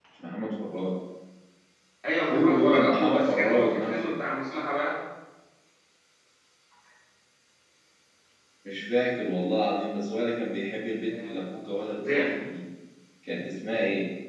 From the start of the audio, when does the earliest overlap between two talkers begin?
2.2 s

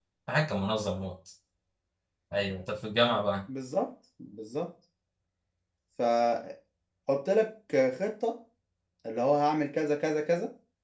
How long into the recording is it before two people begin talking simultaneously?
none

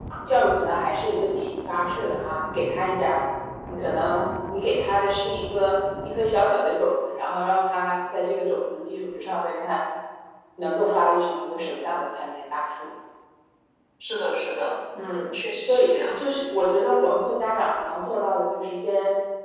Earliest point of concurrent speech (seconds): 14.9 s

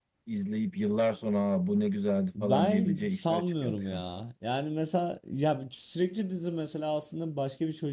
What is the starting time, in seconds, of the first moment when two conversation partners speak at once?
2.3 s

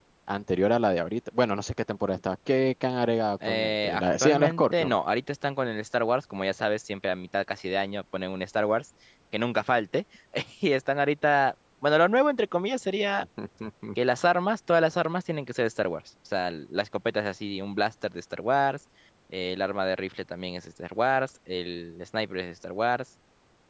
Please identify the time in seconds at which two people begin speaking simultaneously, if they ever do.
3.4 s

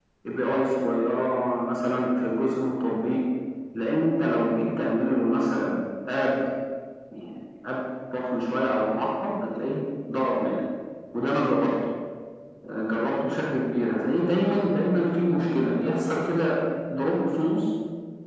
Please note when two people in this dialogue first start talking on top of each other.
none

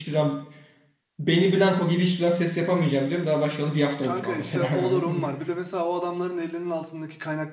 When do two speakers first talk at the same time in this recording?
4.0 s

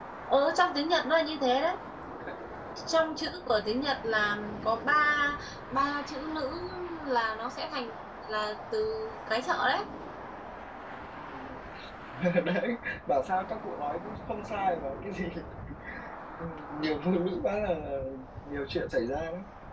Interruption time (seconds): none

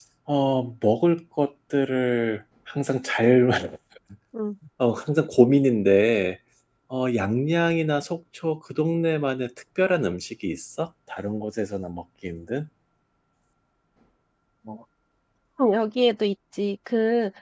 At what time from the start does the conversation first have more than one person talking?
none

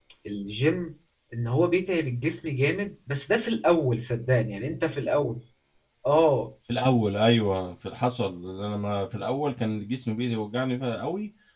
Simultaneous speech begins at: none

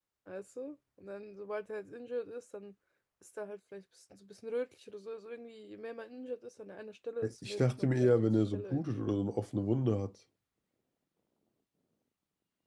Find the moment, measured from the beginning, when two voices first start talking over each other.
7.2 s

